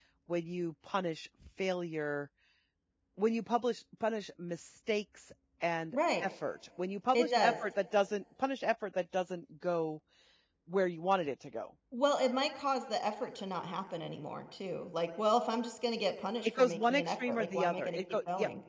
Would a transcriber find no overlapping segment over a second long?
No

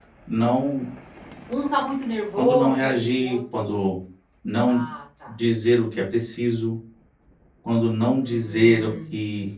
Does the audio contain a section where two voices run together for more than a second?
Yes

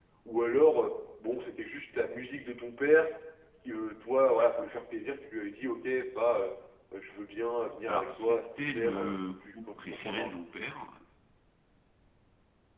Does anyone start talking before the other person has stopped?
Yes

